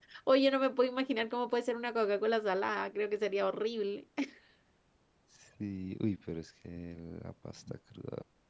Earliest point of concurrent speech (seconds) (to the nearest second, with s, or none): none